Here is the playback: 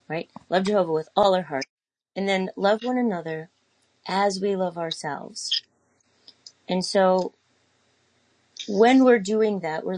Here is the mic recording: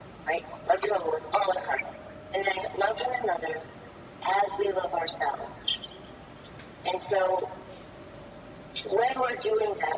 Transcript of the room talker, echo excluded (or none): none